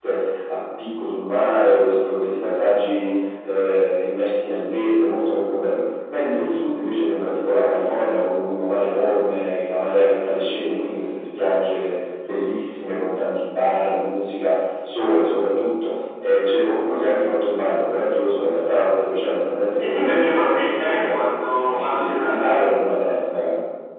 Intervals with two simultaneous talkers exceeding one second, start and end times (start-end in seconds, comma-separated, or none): 19.8-22.7